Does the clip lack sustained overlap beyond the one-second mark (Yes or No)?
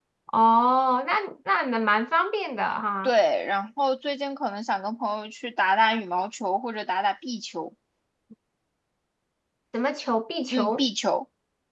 Yes